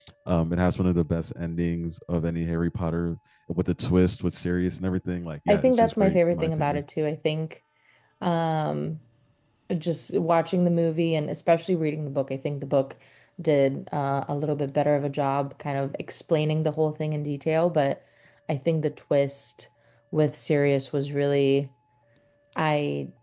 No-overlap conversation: No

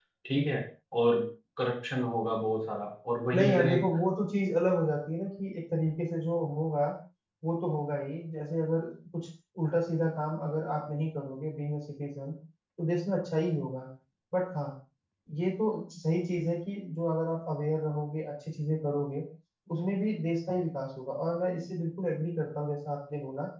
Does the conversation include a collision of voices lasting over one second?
No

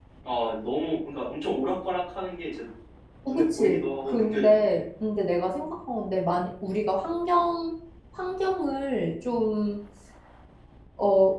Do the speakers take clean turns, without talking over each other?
No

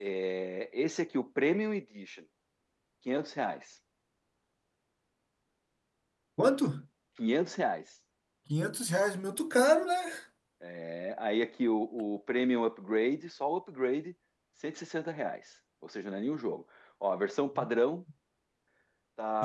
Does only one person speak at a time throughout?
Yes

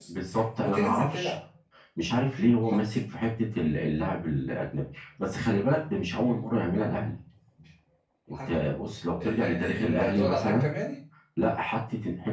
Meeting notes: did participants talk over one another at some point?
Yes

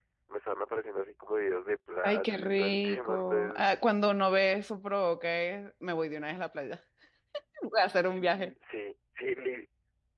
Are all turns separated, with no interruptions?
No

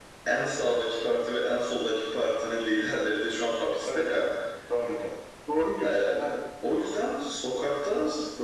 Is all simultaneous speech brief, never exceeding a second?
Yes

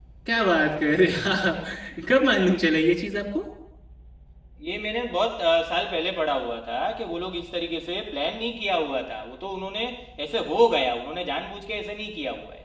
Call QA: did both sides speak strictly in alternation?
Yes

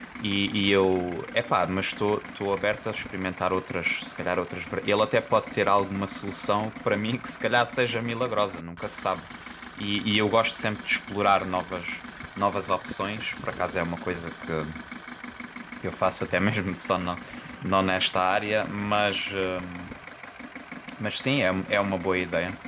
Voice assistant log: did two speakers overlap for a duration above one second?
No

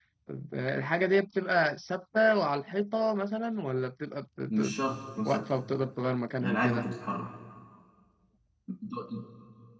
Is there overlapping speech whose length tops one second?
No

